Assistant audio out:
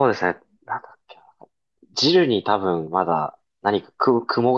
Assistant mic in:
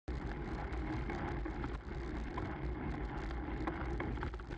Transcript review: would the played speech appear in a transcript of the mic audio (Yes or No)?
No